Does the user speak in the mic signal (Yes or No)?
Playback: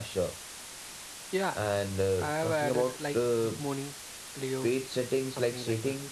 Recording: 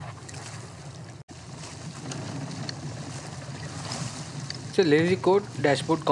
Yes